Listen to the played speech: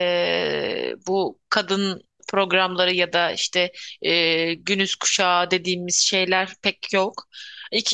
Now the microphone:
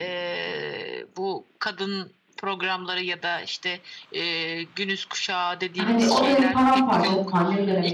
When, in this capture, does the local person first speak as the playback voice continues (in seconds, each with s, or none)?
5.8 s